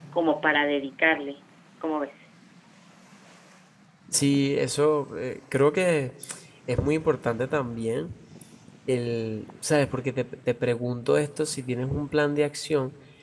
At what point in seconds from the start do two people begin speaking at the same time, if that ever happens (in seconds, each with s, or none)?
none